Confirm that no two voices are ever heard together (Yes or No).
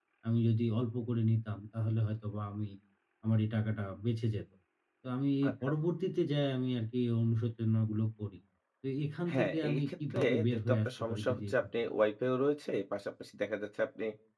No